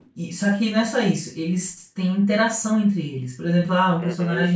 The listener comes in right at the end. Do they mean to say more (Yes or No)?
No